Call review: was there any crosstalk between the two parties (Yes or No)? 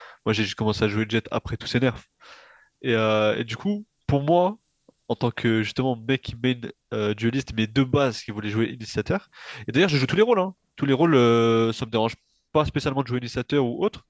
No